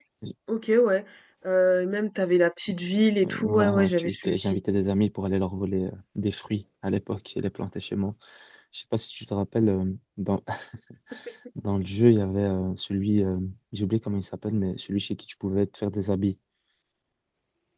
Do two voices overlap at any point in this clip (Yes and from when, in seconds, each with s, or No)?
Yes, from 3.2 s